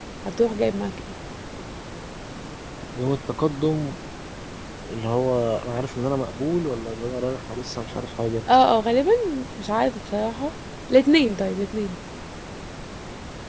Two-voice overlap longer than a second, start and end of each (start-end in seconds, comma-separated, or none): none